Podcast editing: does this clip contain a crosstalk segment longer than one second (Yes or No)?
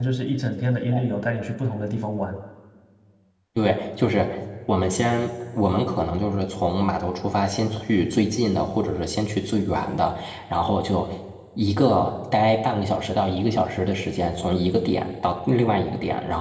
No